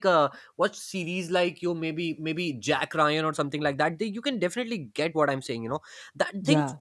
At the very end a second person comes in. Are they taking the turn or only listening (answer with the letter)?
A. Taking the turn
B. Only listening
B